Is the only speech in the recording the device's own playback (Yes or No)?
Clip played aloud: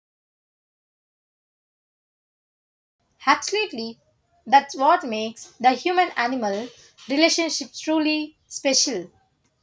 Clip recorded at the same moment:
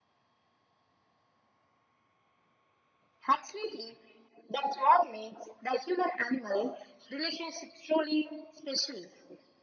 Yes